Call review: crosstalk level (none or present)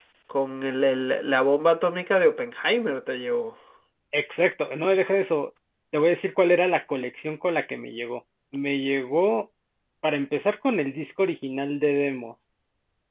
none